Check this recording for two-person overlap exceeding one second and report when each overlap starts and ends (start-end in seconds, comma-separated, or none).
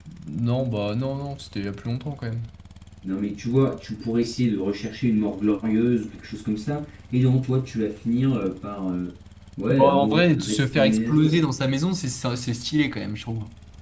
9.7-11.5